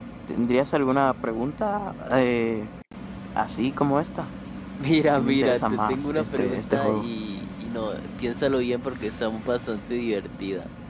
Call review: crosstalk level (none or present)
present